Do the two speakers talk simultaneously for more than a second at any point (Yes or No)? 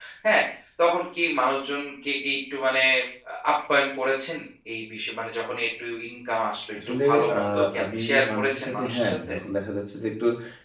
Yes